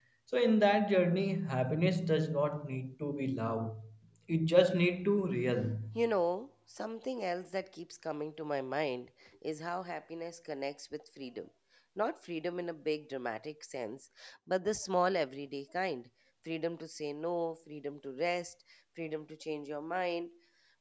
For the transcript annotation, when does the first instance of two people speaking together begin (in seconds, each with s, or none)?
none